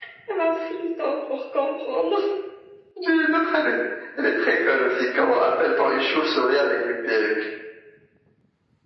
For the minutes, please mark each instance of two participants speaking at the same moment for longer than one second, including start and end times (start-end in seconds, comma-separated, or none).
none